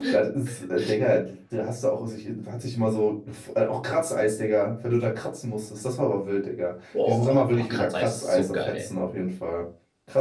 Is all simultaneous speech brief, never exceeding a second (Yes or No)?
No